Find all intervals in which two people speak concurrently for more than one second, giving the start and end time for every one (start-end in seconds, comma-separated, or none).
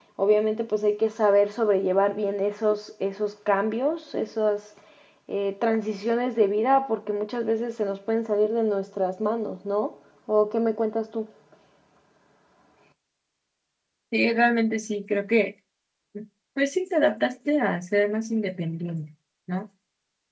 none